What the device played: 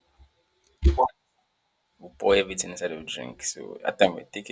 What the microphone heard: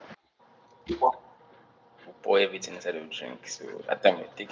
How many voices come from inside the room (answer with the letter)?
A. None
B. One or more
A